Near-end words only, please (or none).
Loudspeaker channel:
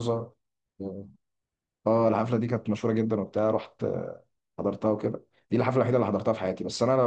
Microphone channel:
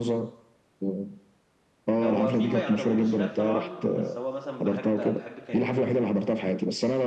هو في ما يعتبروش راب طبعا بس هو مثلا بحب بحب كاريوكي اكتر حاجه